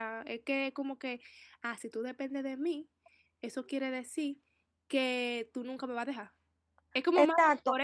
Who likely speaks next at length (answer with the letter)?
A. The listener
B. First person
A